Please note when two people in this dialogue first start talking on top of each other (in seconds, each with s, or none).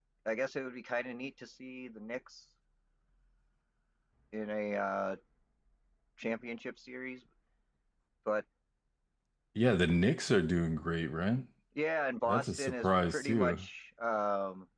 12.3 s